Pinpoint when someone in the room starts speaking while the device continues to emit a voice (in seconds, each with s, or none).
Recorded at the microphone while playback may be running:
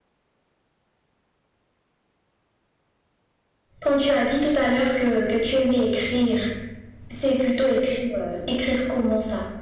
3.8 s